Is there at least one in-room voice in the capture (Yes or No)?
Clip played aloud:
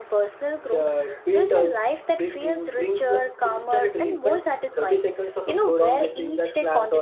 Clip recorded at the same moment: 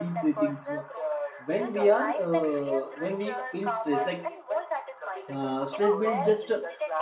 Yes